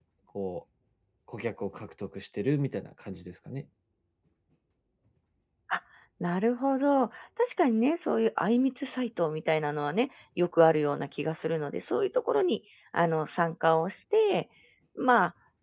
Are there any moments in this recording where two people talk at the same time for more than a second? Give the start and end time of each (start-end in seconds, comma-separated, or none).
none